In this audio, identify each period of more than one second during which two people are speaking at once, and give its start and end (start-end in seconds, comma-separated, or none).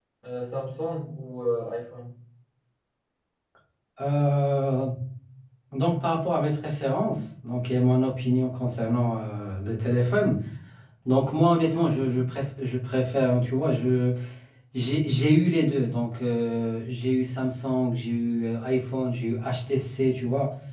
none